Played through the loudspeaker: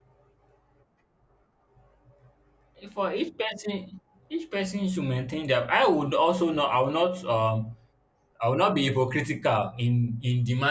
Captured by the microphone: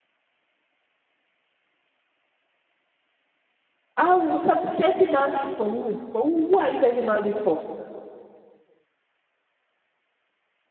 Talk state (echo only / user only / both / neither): user only